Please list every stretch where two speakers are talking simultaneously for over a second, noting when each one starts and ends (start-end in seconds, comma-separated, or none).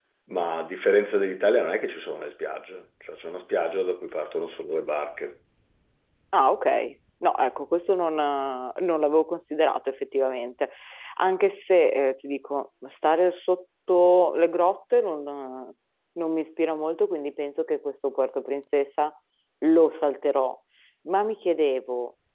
none